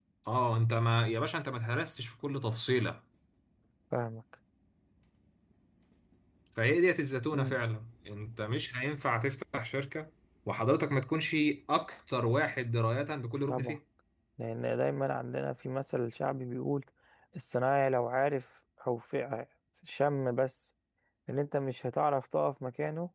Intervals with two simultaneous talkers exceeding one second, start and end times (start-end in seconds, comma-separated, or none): none